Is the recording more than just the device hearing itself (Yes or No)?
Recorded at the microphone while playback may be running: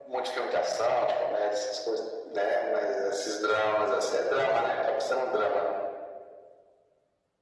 No